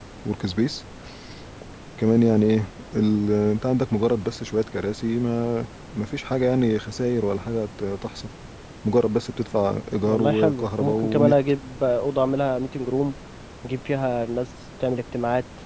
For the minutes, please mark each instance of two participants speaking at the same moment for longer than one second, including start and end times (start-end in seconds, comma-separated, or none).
10.0-11.3